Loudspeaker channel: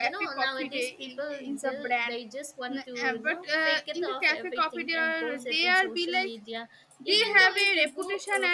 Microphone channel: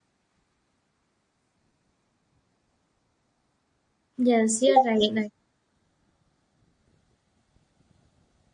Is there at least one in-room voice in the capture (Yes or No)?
Yes